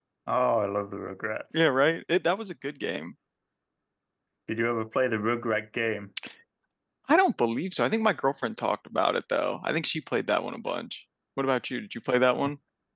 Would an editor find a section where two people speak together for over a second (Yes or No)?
No